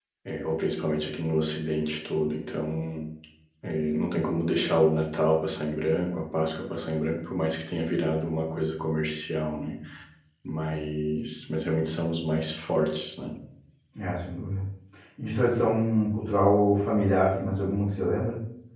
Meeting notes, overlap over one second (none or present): none